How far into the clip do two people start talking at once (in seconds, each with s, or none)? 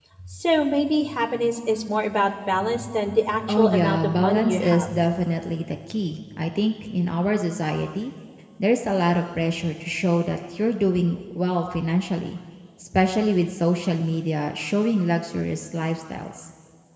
3.5 s